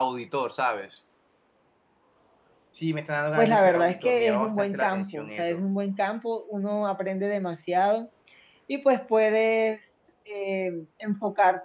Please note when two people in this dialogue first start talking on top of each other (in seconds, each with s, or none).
3.4 s